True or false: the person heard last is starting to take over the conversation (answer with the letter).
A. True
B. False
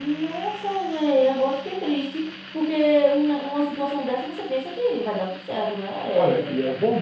A